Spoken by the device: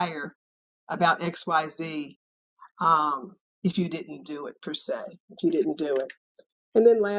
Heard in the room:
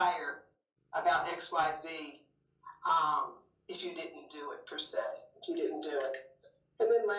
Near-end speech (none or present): none